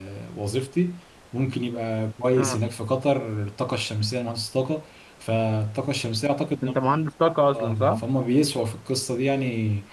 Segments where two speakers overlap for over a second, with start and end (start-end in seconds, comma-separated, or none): none